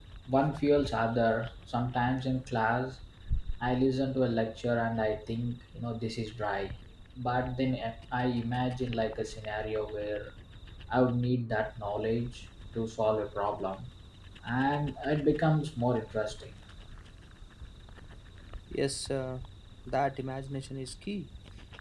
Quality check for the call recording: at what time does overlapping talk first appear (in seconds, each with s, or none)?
none